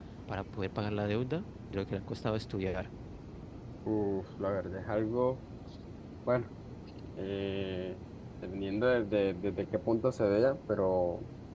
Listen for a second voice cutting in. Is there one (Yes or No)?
No